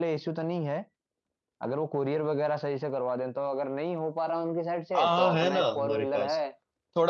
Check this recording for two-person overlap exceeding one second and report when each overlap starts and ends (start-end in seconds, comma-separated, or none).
4.9-6.4